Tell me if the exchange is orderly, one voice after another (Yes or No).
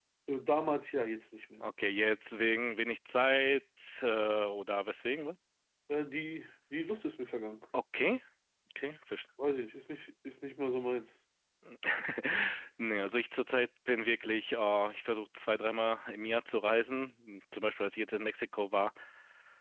Yes